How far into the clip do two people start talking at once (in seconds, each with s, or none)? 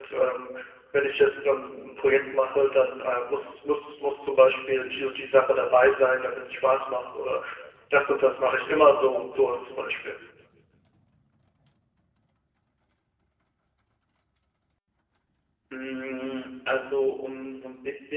none